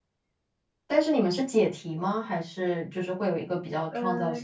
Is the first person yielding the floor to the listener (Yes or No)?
Yes